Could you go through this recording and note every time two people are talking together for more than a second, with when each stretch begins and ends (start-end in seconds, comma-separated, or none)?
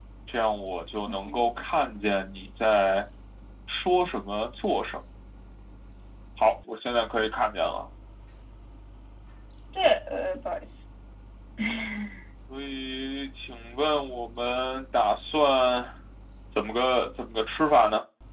none